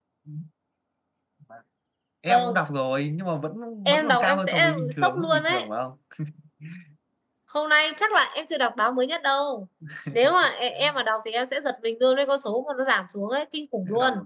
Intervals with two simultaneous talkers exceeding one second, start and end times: 3.9-5.7

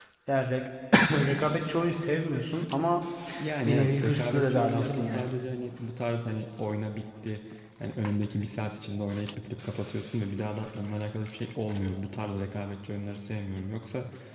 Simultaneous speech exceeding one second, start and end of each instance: 3.6-5.2

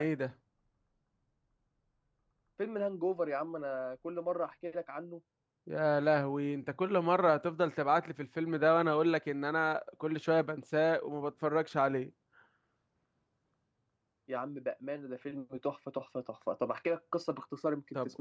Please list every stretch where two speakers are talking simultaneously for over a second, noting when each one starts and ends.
none

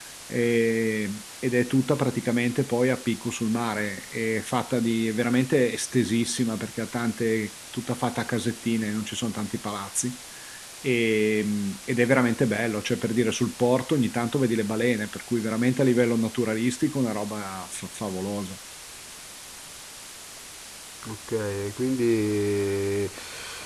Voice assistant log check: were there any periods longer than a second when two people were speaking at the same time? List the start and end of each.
none

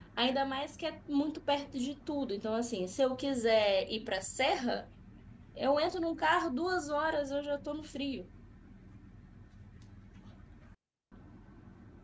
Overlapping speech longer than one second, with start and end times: none

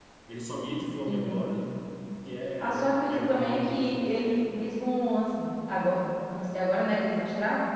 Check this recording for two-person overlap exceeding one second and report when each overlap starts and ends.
2.6-4.0

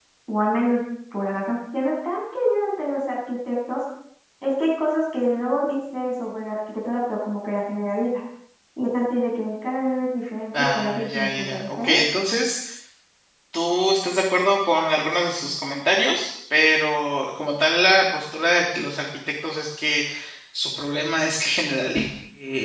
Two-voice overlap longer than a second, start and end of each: 10.5-12.0

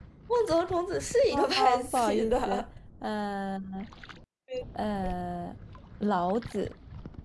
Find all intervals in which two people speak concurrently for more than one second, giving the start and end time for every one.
1.3-2.6

